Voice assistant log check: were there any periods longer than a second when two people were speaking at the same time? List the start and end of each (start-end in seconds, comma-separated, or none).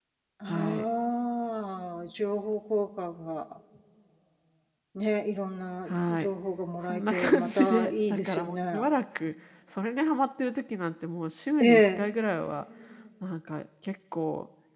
6.8-8.8